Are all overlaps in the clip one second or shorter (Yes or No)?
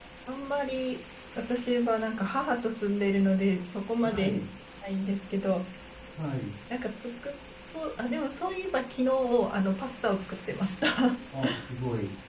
Yes